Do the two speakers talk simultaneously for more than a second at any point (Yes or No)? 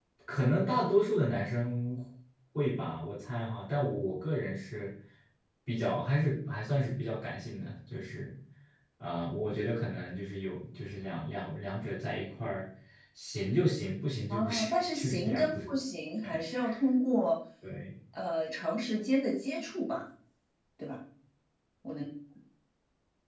Yes